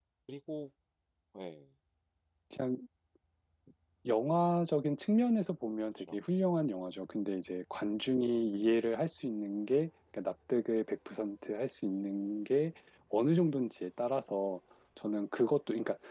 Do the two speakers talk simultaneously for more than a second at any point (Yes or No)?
No